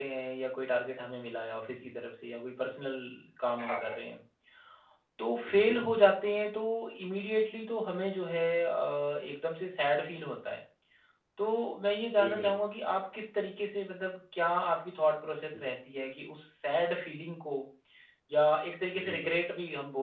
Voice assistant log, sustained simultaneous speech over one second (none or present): none